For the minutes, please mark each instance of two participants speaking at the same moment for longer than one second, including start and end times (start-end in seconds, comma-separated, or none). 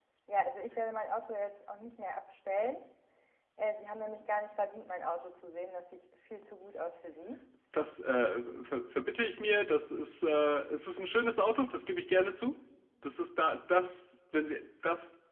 none